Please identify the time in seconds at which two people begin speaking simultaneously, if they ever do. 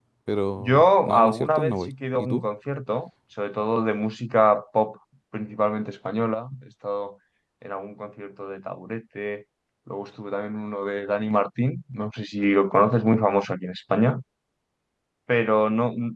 0.6 s

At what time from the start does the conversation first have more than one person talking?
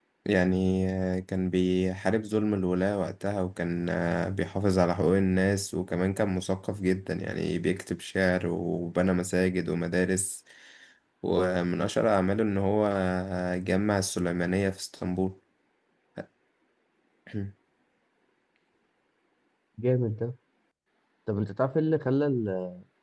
none

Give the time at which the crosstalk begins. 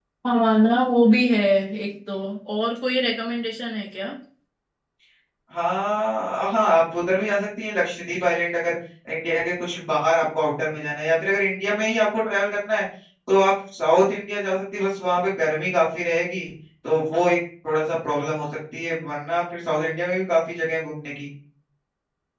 none

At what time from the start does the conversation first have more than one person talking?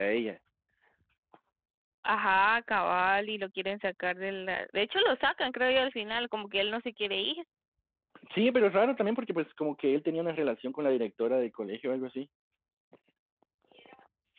none

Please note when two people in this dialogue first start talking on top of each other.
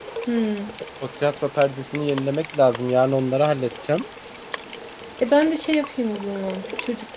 none

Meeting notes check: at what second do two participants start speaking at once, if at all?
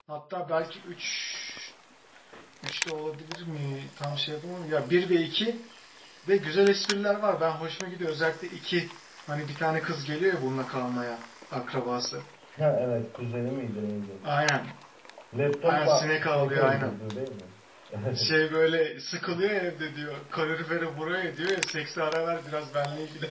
15.7 s

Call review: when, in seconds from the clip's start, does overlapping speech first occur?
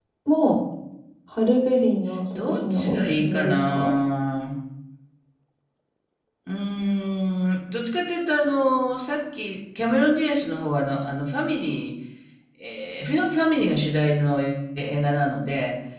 2.4 s

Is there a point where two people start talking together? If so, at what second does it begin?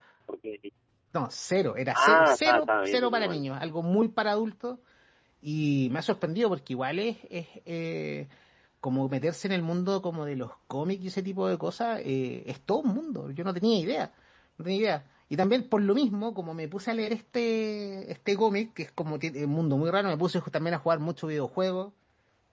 1.9 s

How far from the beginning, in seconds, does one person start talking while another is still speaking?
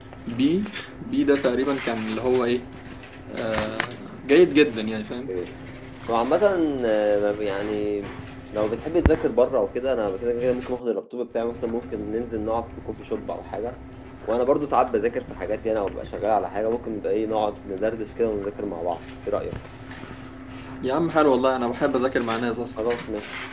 none

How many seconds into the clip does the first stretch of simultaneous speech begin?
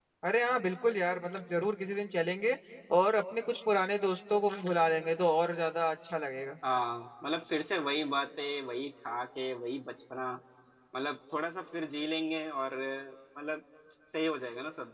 none

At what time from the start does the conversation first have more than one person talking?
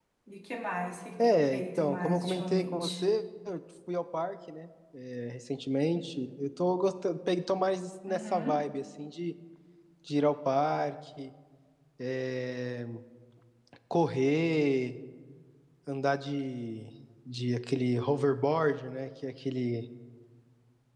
1.2 s

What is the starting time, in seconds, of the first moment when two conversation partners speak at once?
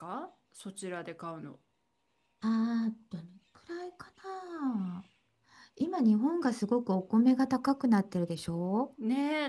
none

